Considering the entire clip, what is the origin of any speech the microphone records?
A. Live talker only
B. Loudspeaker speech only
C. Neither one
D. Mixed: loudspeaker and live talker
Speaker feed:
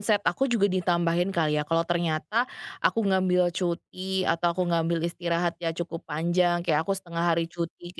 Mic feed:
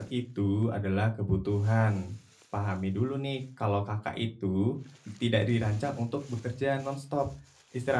A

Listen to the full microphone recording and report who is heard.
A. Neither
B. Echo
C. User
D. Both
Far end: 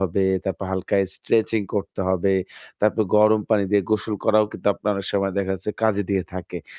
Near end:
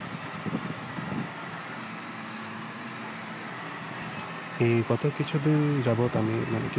C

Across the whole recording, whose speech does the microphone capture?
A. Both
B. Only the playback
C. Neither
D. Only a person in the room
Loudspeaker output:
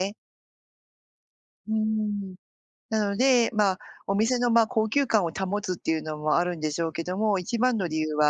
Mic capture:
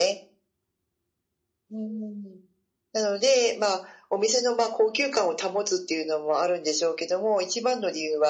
B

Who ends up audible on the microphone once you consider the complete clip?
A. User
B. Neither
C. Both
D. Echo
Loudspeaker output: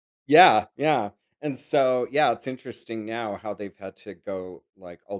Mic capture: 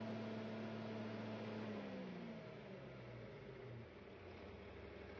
B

